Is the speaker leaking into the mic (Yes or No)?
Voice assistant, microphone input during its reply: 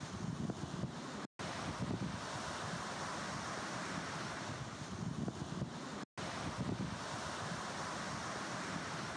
No